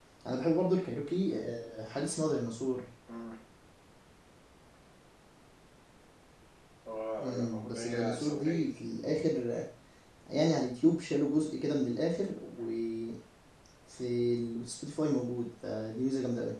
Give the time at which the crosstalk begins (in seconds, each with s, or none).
7.2 s